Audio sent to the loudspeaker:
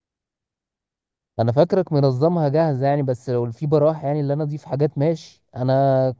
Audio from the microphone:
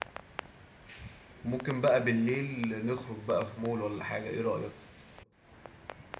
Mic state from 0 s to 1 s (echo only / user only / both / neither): neither